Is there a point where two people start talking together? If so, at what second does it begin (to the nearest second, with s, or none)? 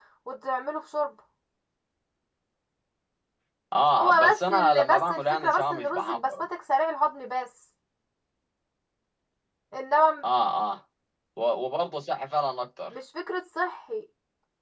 4 s